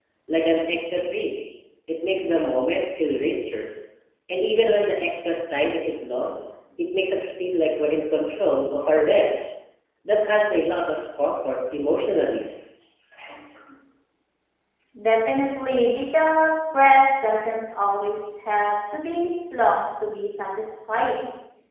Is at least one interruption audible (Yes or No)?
No